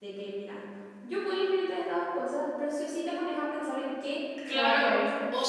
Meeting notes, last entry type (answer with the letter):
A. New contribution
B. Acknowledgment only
A